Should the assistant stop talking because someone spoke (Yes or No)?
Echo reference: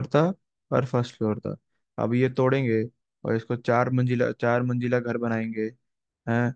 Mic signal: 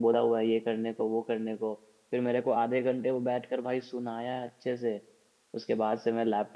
Yes